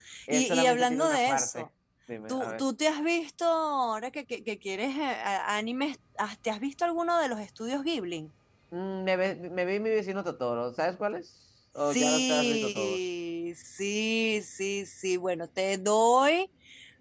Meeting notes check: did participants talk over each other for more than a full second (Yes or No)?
Yes